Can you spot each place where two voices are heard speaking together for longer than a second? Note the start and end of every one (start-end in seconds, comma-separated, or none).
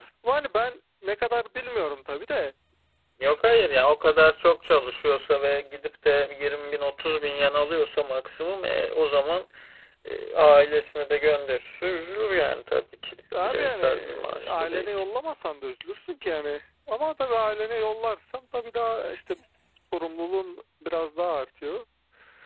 13.4-15.0